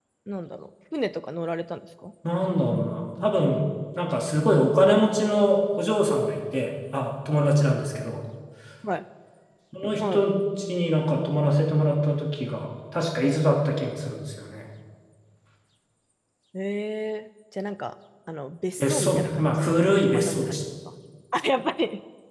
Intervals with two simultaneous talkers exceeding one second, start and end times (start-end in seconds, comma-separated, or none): 18.8-20.6